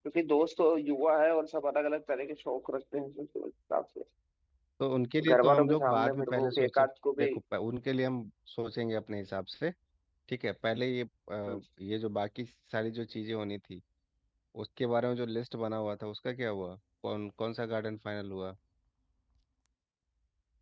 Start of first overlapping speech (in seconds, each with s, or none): 5.3 s